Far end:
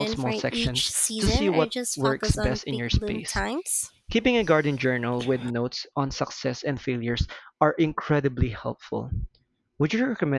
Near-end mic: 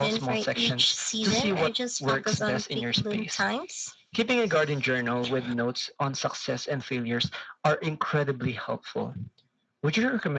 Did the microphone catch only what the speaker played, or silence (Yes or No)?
Yes